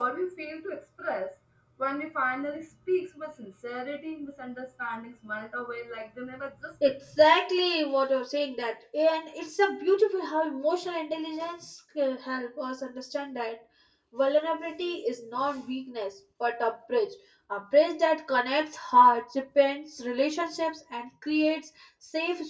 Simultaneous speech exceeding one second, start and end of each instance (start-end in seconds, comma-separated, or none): none